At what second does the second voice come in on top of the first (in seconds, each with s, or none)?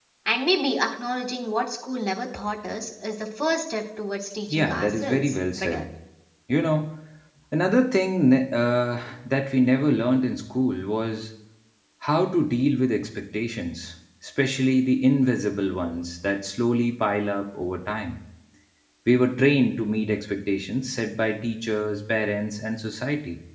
4.5 s